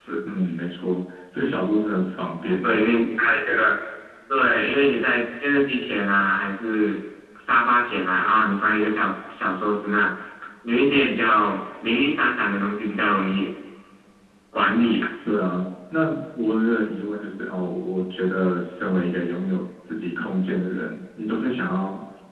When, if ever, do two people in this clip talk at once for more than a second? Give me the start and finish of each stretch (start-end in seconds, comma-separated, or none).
none